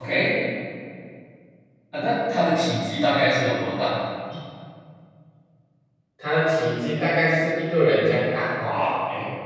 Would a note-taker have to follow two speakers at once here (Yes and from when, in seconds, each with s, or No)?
No